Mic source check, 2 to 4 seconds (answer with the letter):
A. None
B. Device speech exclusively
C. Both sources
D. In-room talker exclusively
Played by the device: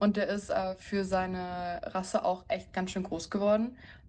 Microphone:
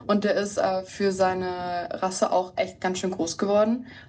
B